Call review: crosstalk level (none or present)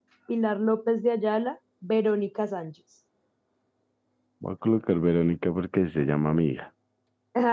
none